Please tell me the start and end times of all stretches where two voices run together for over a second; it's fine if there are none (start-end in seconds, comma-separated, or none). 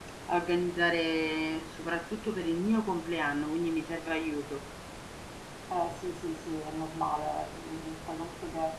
none